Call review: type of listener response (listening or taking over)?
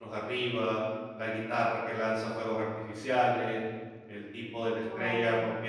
listening